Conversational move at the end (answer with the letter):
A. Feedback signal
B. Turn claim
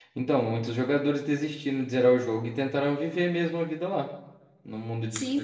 B